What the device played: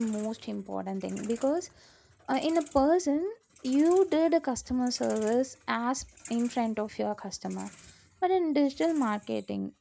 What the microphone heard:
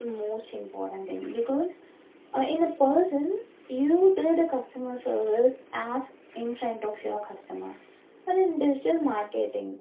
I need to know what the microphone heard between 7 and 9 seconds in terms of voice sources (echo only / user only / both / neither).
echo only